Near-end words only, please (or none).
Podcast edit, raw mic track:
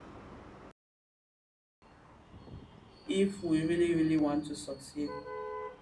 if we really really want to succeed